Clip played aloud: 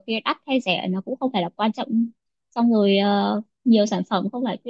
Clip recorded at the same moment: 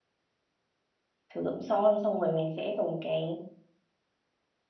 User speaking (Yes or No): Yes